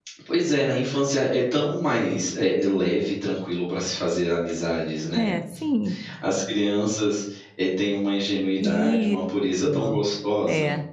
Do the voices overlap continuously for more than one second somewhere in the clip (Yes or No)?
No